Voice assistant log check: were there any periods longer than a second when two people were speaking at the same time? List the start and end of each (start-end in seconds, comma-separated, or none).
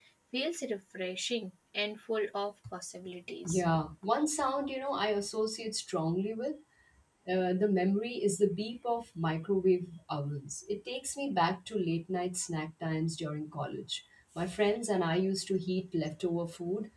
none